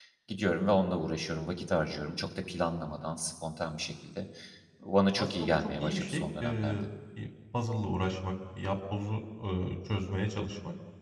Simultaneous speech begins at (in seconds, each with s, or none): 5.2 s